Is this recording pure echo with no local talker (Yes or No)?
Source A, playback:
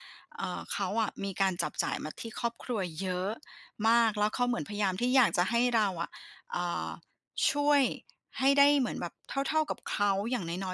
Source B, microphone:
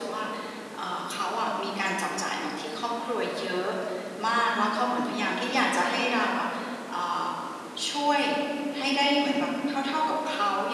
Yes